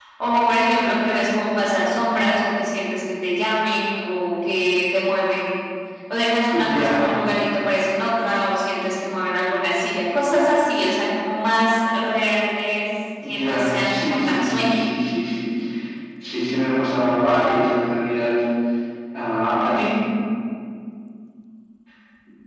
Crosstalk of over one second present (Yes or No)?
Yes